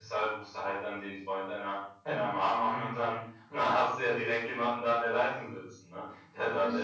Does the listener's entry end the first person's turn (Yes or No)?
Yes